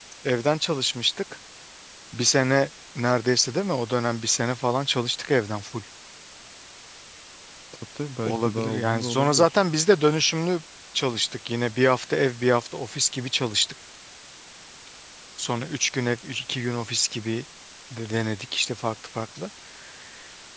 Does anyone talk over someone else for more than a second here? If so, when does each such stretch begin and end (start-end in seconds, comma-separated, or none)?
8.2-9.6